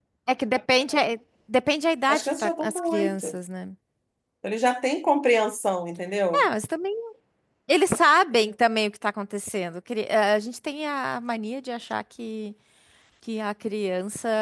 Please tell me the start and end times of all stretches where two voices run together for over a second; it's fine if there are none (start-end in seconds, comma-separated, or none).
2.1-3.4